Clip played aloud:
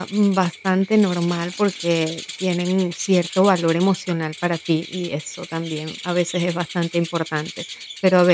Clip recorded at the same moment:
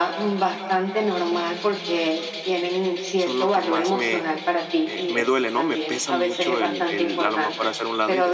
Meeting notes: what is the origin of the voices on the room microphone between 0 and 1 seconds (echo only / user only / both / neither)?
echo only